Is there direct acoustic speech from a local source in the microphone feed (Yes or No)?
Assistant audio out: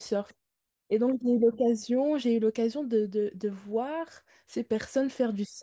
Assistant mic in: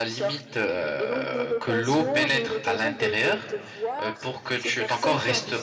Yes